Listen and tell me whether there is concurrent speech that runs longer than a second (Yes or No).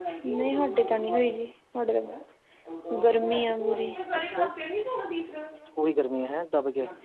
No